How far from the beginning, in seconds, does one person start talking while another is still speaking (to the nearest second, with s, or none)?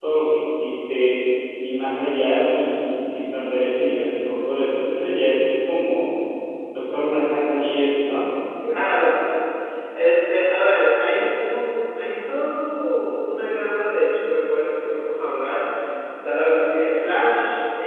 none